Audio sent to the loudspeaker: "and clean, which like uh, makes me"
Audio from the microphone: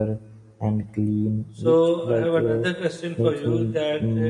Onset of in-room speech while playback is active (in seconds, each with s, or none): 1.6 s